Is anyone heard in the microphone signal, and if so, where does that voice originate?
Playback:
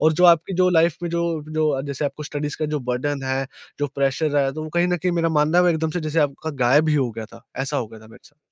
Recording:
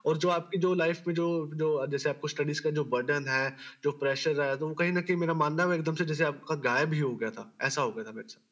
echo only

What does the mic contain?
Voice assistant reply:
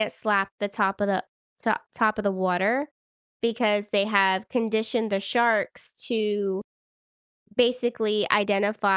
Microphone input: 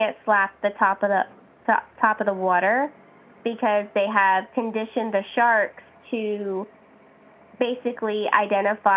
echo only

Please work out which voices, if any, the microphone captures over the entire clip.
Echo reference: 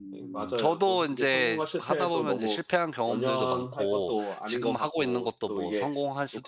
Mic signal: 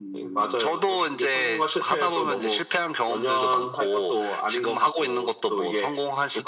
echo only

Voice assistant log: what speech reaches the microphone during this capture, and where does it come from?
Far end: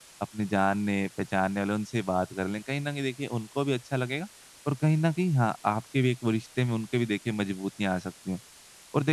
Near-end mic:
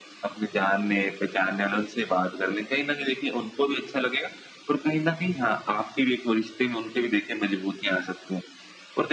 echo only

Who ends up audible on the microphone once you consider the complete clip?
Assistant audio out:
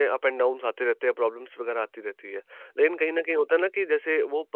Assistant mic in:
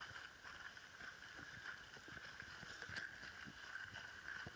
neither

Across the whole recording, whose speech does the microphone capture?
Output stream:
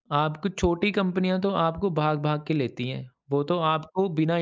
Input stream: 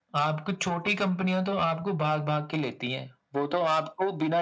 echo only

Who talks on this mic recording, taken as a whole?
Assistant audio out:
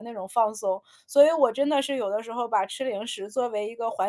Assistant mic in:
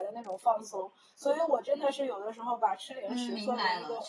both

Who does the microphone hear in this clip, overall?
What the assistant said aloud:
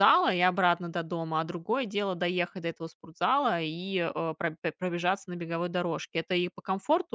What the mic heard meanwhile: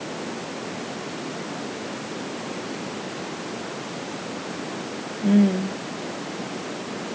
user only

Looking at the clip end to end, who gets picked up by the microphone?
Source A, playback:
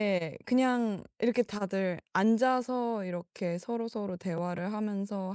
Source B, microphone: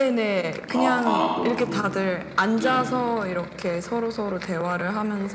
both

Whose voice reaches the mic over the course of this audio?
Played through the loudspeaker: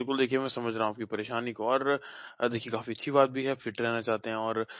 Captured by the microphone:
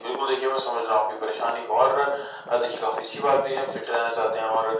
echo only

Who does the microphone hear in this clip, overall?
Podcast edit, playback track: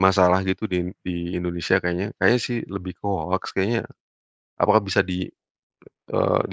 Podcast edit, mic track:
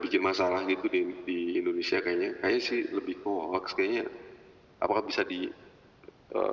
echo only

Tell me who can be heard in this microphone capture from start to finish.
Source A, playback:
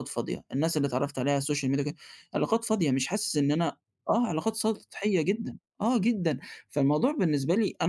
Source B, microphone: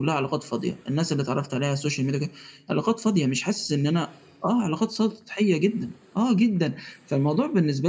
echo only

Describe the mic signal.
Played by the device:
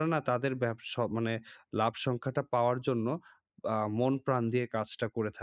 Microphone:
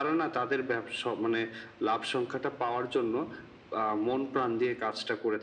echo only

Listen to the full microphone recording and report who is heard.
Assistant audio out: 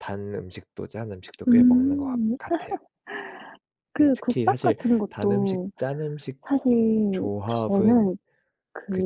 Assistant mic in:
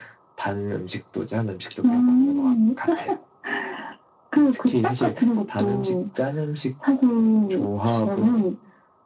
echo only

